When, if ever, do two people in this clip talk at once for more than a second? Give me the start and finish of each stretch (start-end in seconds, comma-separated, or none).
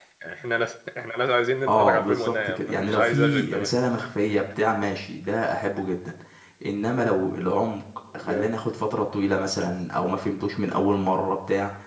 1.7-3.7